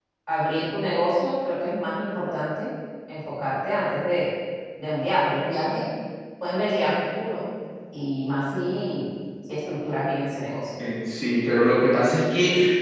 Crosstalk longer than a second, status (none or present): none